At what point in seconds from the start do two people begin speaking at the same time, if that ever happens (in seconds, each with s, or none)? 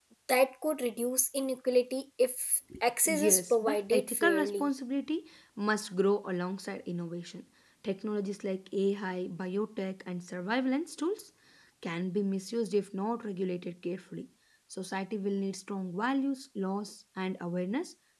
3.1 s